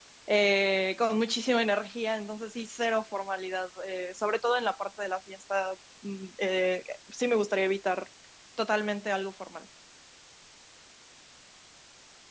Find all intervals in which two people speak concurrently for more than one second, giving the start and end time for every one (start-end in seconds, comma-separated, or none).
none